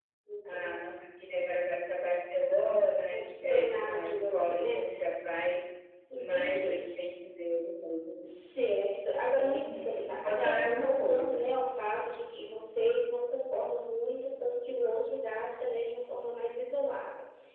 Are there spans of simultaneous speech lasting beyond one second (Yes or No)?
Yes